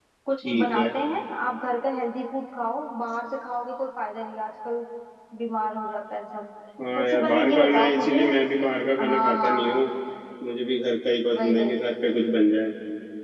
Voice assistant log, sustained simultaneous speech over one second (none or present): present